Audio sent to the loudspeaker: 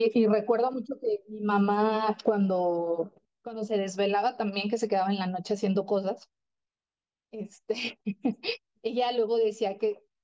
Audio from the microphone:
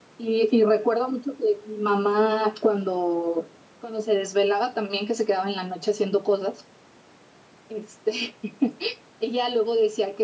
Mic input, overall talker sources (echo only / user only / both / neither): echo only